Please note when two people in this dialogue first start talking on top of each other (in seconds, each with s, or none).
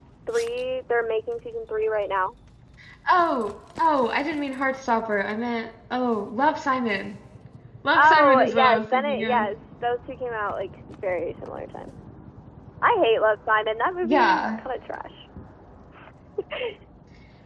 8.0 s